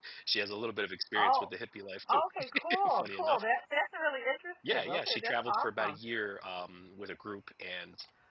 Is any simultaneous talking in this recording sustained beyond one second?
Yes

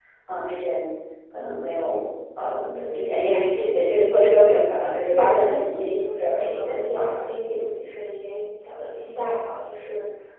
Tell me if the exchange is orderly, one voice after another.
No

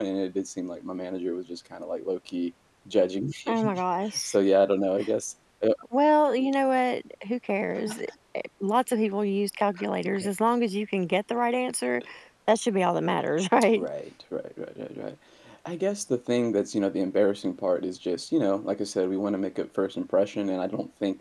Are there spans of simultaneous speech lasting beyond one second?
No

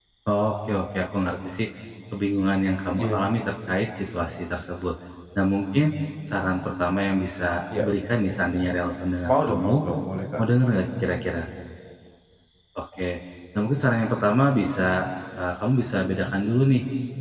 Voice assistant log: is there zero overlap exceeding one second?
Yes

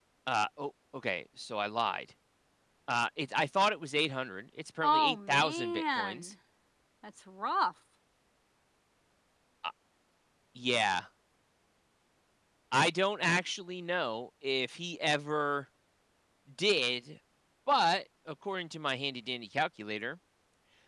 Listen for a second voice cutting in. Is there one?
Yes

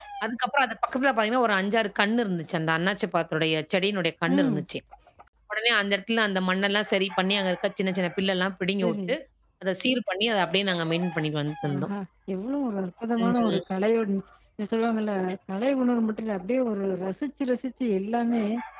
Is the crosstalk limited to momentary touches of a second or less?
Yes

